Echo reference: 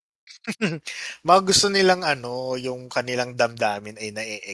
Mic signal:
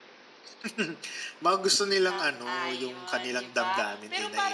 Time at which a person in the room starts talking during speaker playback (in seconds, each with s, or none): 1.9 s